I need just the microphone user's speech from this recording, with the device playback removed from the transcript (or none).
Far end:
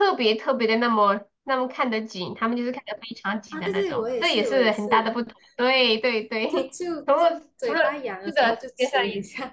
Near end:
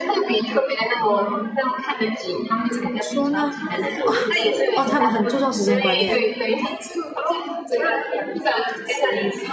怎么说呢？哦哦，他们很注重时间观念，